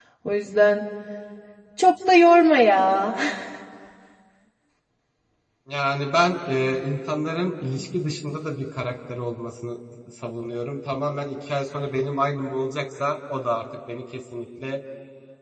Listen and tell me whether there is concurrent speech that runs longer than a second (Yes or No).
No